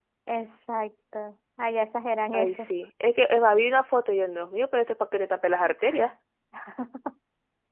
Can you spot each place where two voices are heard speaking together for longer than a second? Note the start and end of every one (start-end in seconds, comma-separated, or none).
none